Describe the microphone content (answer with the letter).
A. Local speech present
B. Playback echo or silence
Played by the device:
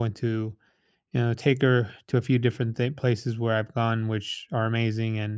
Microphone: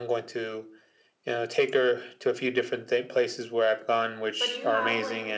A